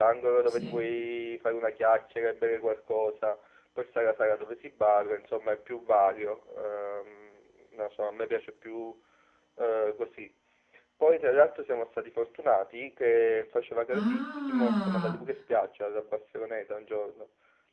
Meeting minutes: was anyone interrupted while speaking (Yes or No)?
Yes